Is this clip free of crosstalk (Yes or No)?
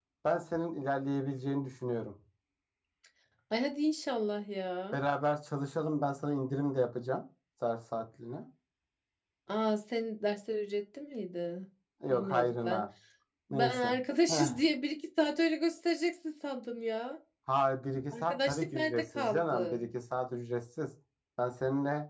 No